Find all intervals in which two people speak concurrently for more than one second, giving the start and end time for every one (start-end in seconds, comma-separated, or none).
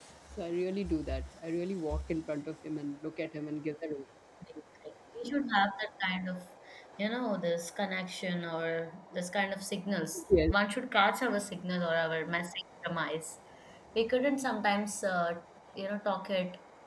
none